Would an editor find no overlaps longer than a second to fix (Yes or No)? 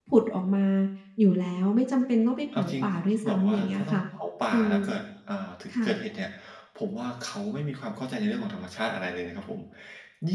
No